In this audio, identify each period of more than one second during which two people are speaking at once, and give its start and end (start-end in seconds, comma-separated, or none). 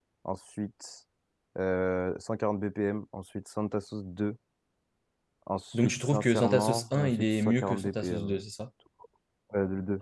5.7-8.4